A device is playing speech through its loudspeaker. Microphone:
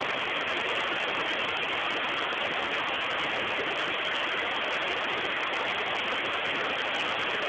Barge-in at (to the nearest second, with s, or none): none